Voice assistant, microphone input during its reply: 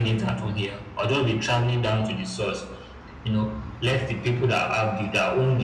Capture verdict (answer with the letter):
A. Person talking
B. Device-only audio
B